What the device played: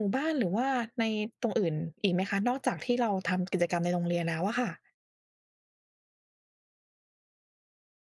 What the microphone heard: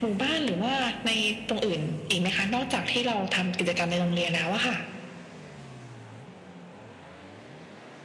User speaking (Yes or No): No